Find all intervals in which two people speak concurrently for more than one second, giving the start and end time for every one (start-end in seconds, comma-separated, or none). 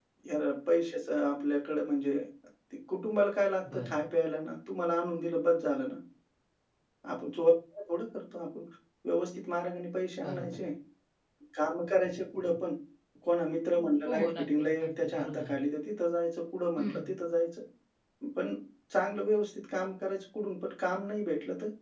14.1-15.5